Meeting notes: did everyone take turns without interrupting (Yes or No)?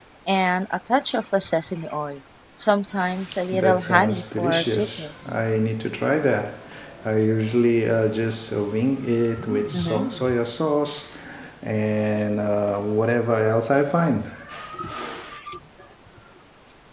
No